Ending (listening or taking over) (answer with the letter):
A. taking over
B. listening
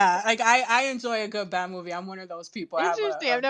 A